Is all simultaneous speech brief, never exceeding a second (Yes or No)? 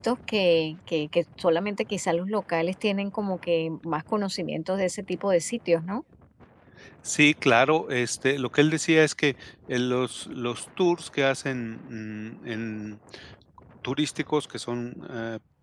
Yes